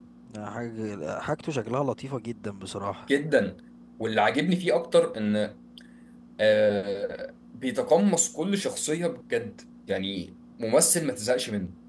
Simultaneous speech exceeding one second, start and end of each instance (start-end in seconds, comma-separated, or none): none